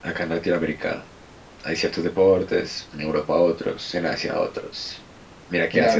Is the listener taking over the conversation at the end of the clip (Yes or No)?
Yes